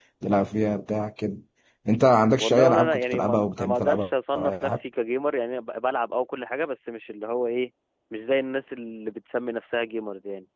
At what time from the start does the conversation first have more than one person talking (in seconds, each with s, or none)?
2.4 s